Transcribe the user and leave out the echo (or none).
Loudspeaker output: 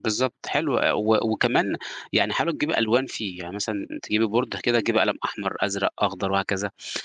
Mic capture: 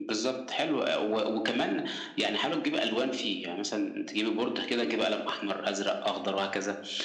none